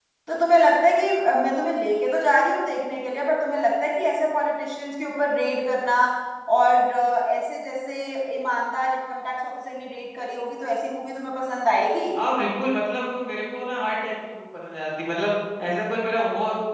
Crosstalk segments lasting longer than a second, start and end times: none

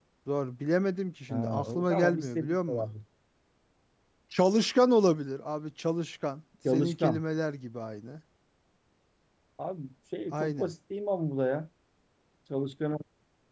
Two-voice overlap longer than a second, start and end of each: 1.3-2.9

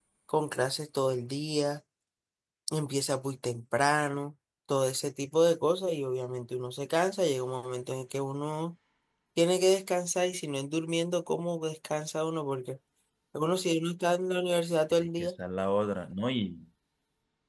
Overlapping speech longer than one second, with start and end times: none

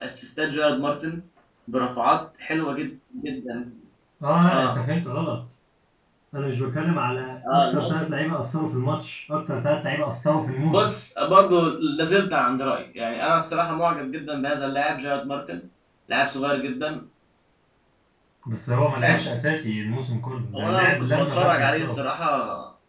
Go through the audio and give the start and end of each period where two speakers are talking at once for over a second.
20.5-22.0

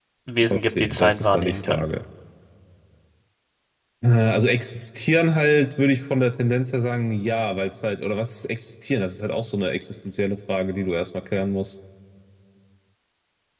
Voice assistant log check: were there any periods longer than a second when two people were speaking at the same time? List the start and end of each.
0.5-1.9

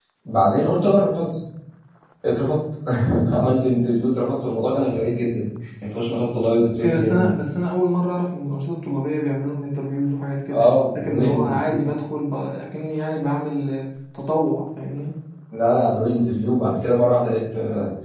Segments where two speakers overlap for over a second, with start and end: 10.5-11.8

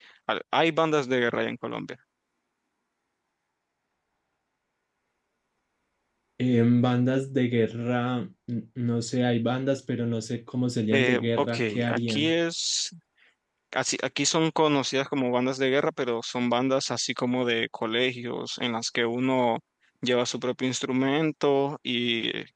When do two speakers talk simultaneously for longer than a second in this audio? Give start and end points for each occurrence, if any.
10.9-12.3

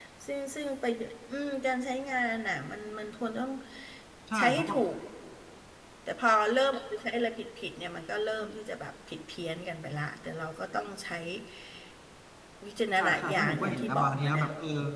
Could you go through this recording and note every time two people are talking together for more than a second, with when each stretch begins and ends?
13.0-14.4

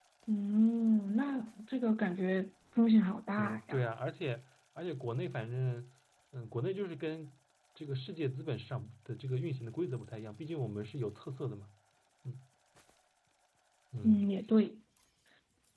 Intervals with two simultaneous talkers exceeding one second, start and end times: none

